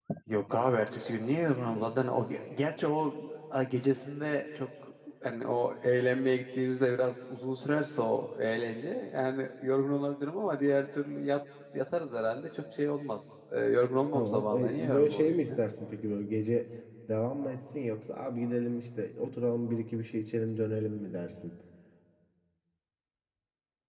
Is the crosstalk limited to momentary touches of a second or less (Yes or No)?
No